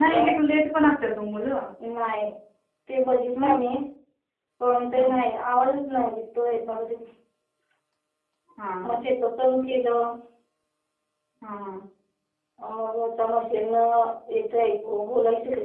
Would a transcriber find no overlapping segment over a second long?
Yes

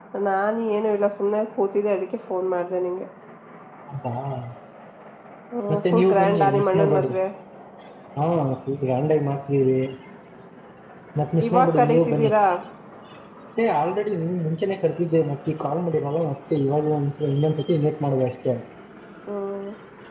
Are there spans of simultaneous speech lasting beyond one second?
Yes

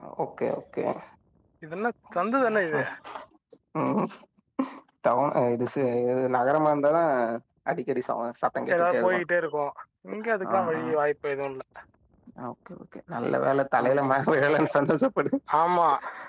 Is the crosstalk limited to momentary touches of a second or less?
Yes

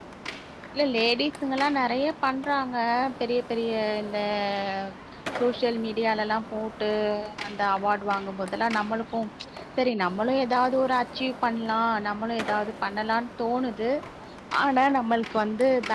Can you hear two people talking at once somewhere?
No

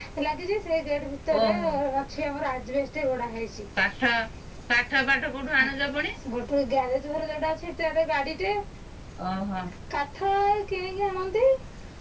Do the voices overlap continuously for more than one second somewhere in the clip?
No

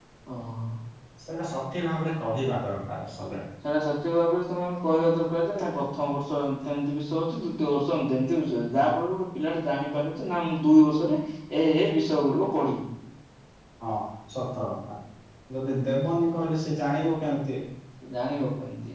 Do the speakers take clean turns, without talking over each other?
Yes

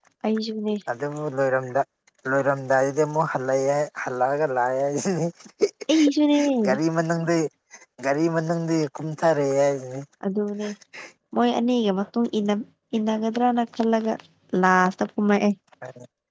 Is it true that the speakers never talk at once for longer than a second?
Yes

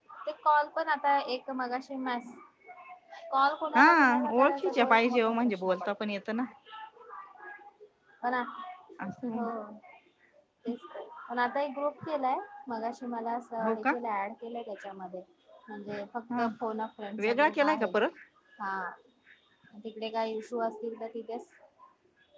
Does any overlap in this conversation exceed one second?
Yes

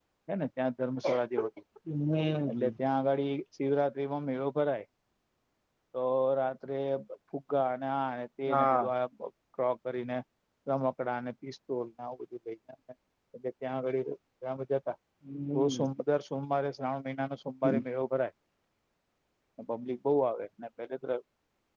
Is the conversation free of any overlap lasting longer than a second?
Yes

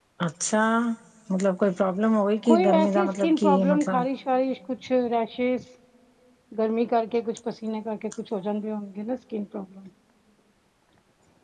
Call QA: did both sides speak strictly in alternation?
No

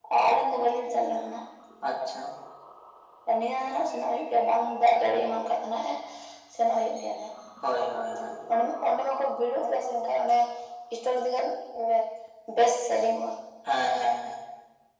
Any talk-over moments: No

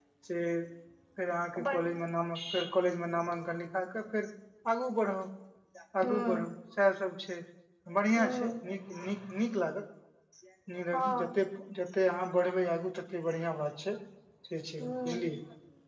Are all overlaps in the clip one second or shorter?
Yes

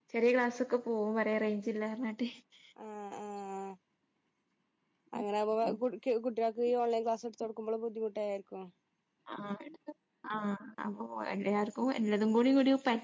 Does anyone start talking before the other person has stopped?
No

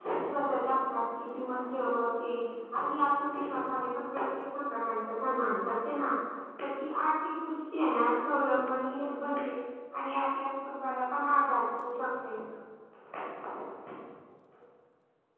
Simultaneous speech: No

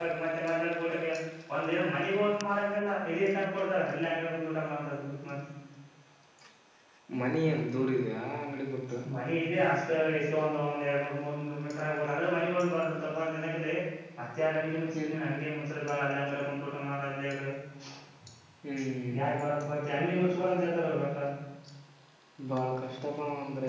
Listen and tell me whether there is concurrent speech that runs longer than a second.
No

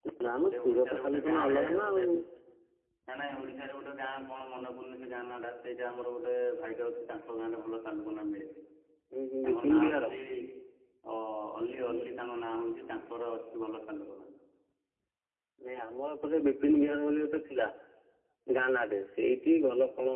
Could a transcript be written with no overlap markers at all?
No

